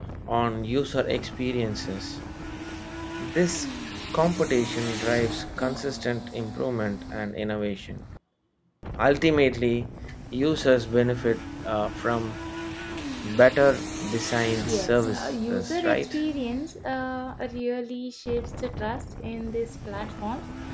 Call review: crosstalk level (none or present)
present